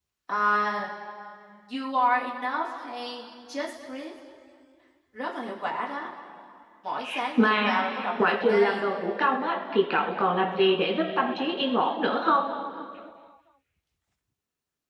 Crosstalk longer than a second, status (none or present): present